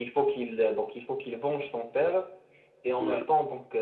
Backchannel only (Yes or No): Yes